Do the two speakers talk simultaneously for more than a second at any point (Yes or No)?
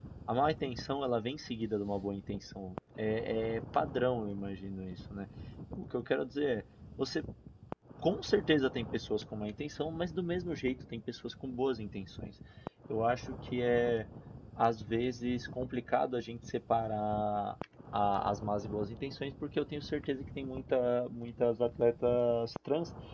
No